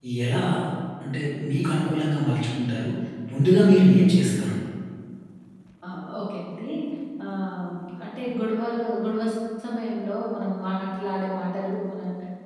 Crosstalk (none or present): none